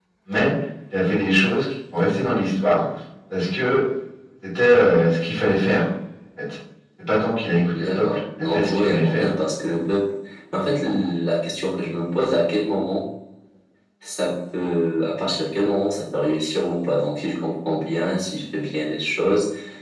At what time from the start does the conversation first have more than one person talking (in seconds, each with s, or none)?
7.8 s